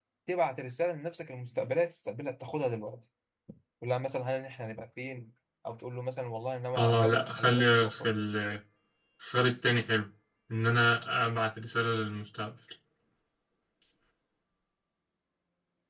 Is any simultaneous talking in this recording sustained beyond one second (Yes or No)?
Yes